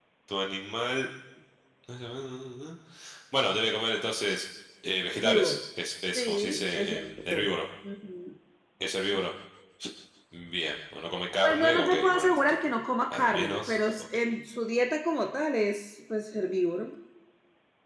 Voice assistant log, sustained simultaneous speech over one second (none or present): present